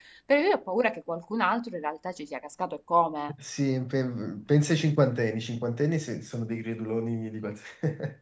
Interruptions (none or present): none